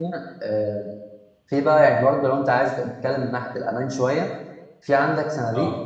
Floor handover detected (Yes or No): No